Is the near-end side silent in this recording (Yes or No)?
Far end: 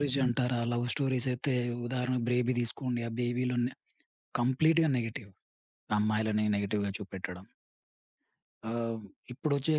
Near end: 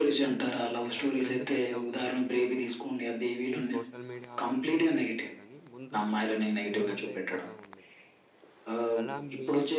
No